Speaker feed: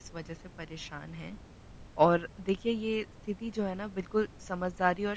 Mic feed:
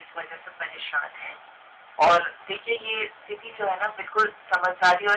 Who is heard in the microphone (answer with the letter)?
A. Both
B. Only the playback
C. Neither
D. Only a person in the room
B